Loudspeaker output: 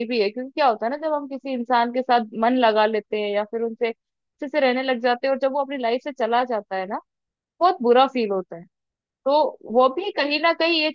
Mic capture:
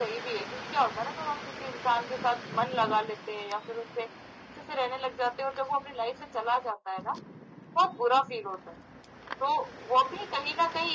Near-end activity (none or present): none